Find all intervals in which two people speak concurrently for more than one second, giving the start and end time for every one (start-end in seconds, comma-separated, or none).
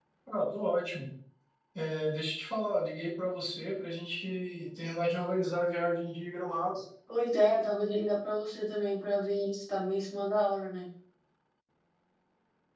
none